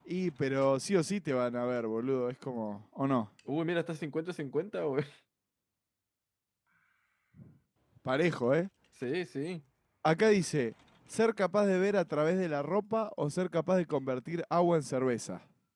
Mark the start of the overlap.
none

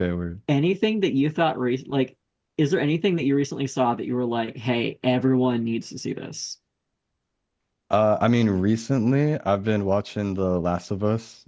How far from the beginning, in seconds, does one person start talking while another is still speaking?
none

